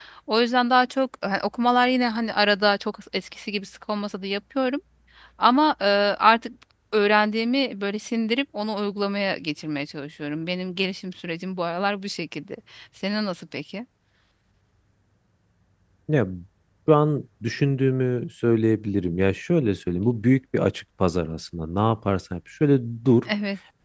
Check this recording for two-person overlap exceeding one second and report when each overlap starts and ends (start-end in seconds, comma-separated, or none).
none